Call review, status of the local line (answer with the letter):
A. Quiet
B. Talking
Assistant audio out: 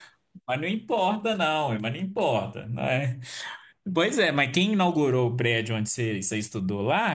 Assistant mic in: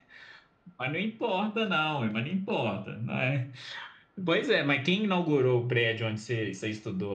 A